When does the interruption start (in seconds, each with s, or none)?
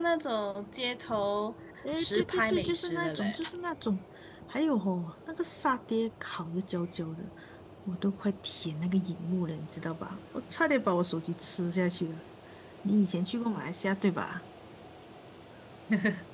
2.0 s